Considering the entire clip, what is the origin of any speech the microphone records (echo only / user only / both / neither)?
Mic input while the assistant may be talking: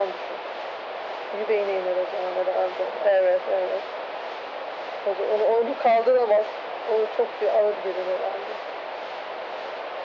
echo only